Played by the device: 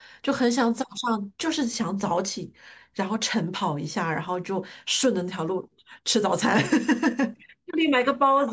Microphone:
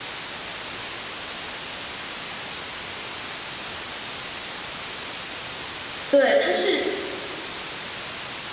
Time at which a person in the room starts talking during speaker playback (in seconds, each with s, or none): 6.1 s